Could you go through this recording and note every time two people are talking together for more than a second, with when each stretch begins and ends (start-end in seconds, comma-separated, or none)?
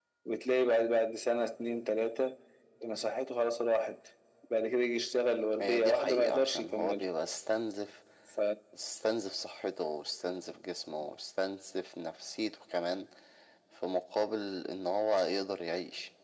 5.6-7.0